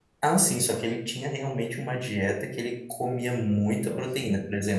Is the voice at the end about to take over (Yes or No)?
No